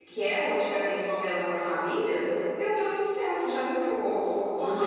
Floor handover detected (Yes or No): Yes